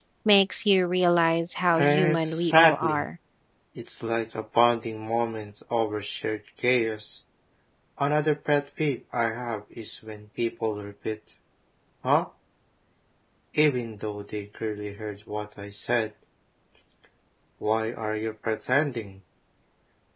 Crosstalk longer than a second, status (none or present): present